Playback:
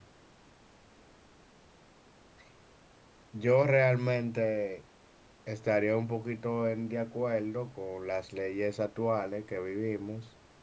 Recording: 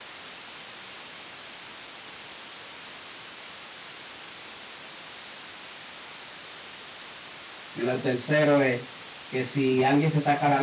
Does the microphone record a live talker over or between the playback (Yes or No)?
Yes